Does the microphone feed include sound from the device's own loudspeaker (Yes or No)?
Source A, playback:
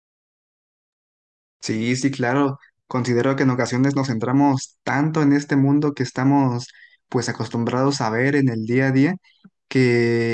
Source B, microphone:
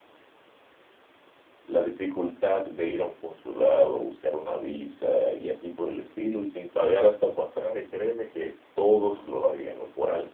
No